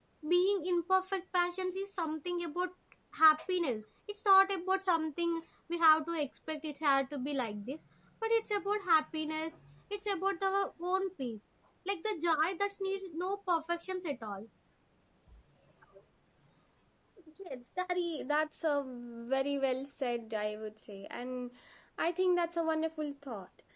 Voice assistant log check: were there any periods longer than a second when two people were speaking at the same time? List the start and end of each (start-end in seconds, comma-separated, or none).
none